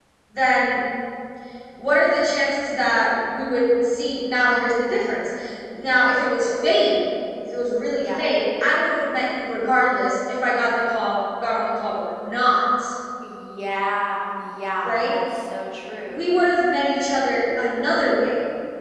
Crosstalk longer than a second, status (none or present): none